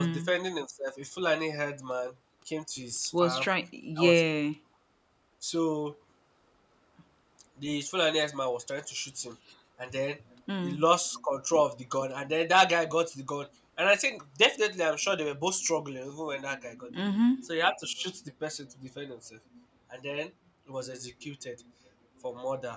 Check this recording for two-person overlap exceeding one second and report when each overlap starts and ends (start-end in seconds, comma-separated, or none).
none